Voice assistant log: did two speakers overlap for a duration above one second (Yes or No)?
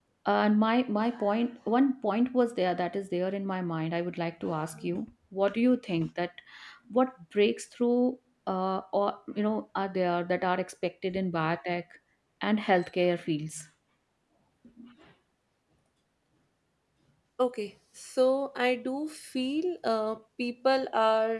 No